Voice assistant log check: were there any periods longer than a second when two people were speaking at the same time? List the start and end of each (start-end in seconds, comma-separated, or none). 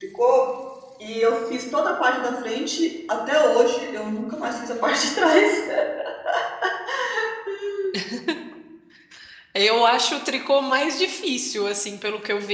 none